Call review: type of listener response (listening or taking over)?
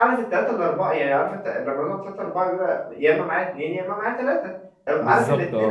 listening